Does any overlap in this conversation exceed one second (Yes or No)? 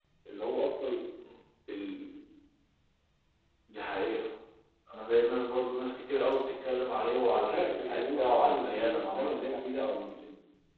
Yes